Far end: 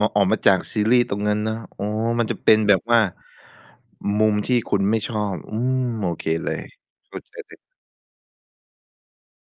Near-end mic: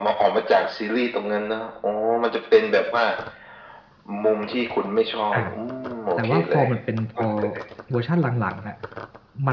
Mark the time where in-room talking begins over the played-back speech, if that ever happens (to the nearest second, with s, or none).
5 s